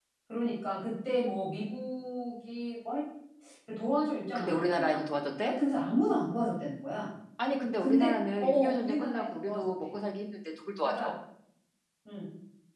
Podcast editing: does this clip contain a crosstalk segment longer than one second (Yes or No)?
Yes